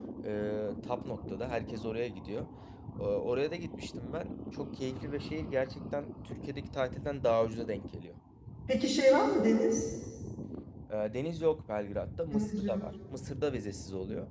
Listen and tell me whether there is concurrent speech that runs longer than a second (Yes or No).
No